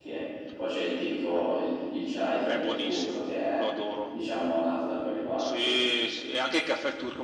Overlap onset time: 2.5 s

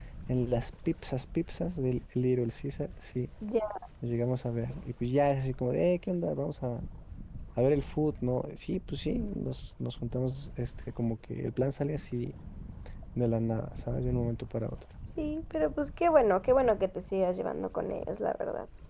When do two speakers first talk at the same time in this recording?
none

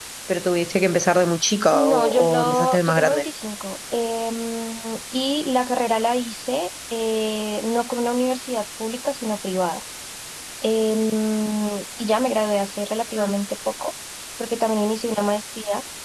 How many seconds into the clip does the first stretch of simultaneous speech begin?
1.7 s

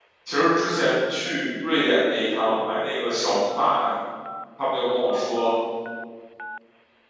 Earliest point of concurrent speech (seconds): none

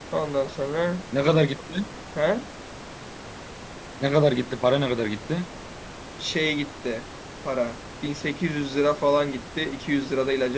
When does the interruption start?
none

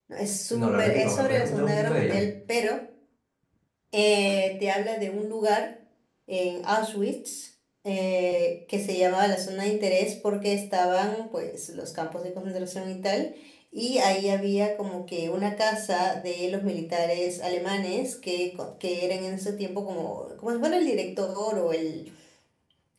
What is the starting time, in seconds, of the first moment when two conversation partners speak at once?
0.5 s

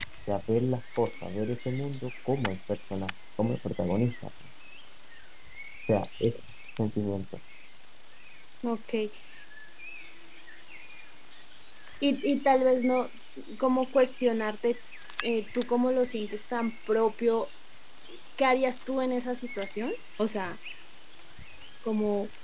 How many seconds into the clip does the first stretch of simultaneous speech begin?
none

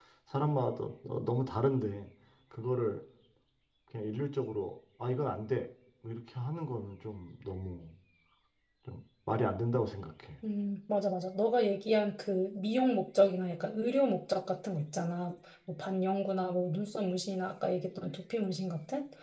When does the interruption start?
none

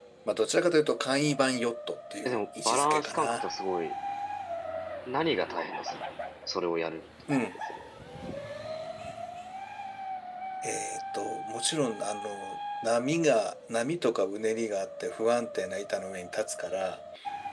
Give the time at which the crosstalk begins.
2.2 s

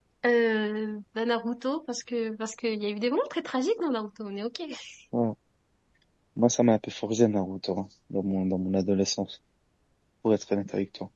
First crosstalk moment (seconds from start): none

